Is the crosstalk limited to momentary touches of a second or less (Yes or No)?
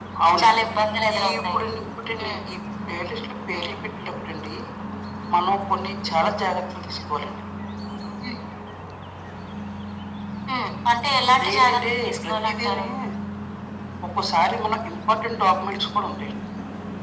No